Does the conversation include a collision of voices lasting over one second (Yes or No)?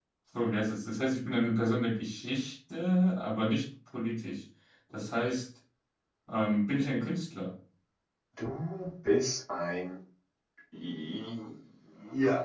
No